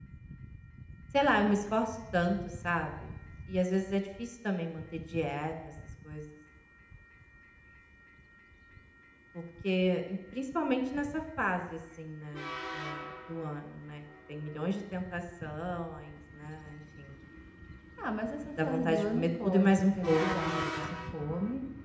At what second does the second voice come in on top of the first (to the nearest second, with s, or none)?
19 s